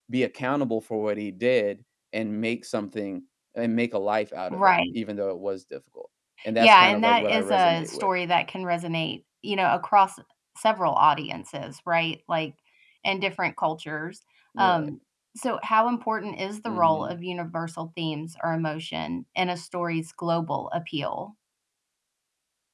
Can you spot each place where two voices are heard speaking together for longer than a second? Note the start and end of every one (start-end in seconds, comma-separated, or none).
6.6-8.1